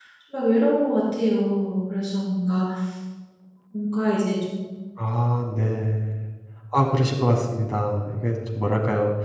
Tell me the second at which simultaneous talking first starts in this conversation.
none

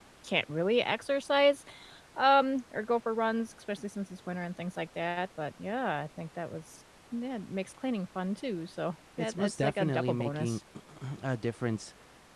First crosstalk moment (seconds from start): 9.2 s

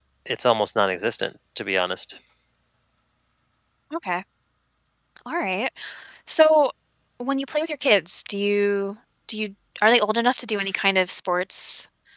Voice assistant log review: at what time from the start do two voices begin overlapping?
none

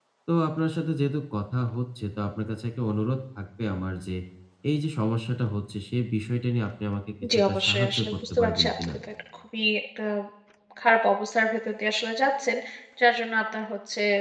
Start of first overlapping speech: 7.2 s

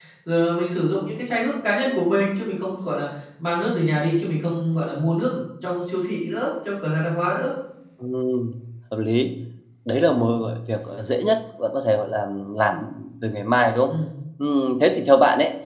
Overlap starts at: none

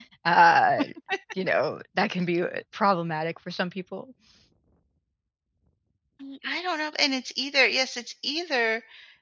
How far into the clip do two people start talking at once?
none

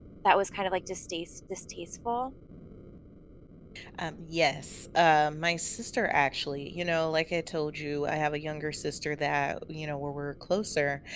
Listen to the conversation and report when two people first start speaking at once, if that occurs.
none

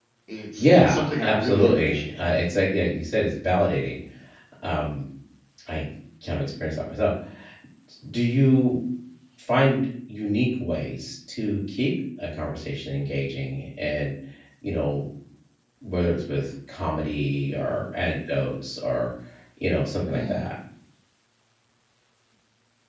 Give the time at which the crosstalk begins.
0.6 s

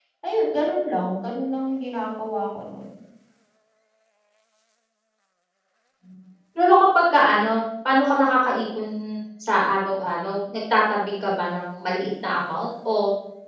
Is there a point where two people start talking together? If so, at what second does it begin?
none

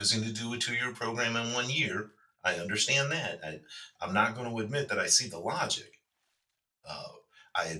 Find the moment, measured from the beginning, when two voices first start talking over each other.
none

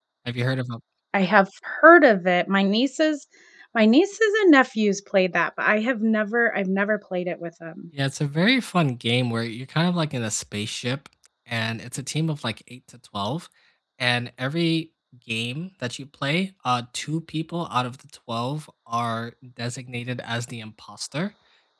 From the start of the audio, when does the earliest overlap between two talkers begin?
none

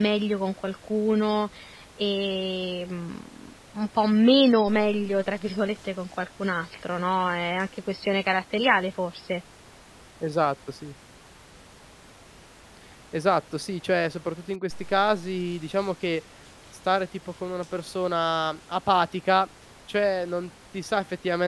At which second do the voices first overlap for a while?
none

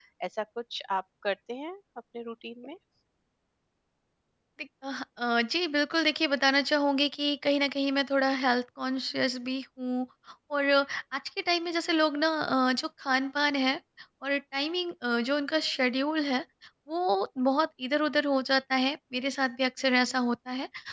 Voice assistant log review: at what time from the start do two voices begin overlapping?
none

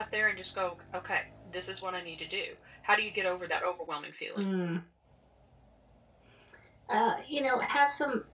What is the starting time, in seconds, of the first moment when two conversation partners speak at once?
none

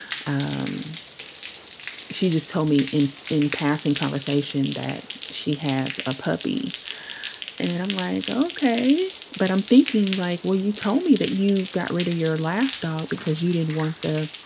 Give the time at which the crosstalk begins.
none

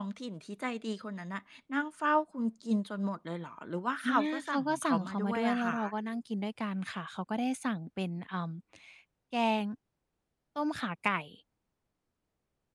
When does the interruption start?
4.0 s

